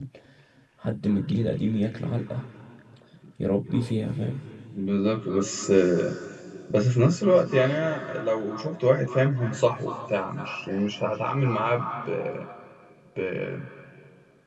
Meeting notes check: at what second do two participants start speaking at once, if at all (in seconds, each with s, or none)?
none